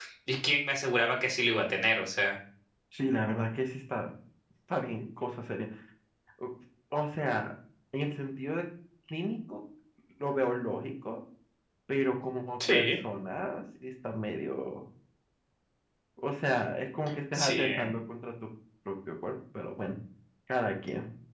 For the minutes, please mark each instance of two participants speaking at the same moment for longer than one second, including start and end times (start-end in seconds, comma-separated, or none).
none